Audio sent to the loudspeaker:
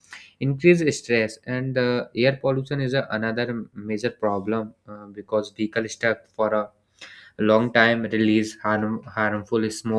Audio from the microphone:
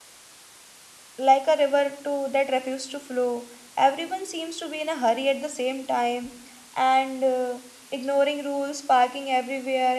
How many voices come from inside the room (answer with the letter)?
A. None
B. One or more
B